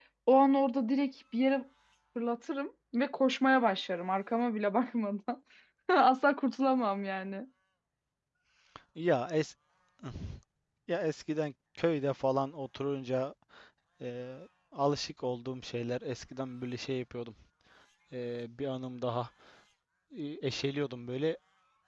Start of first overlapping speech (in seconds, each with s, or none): none